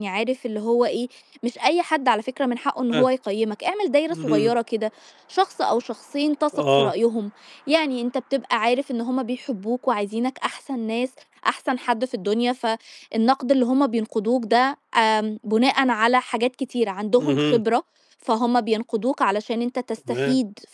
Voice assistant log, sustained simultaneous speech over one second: none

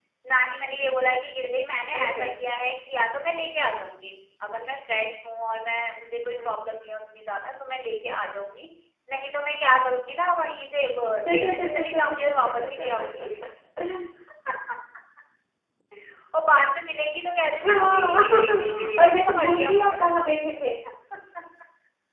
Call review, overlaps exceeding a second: present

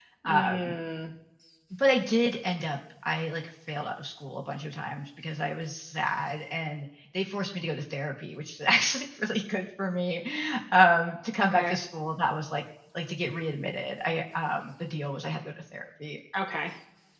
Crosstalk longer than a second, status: none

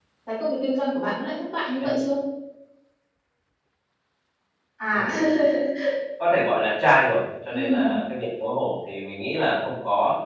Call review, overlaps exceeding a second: none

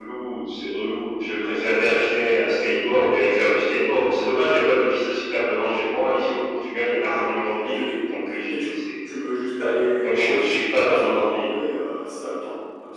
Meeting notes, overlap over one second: present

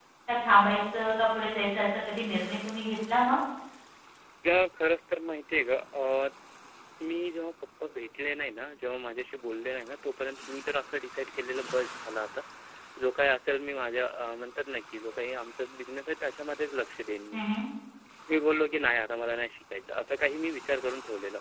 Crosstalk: none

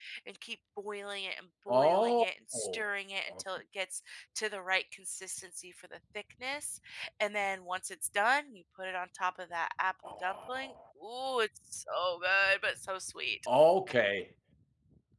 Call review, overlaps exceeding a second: none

